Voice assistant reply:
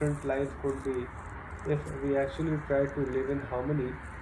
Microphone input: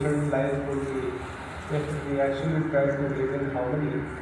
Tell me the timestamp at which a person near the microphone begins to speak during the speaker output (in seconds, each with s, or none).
none